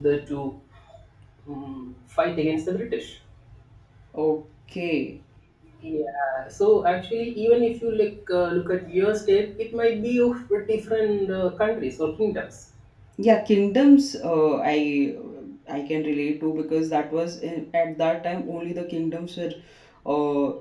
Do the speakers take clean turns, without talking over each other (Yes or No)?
Yes